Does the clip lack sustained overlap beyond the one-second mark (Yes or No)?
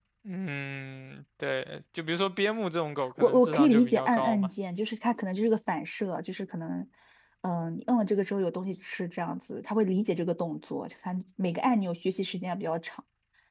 No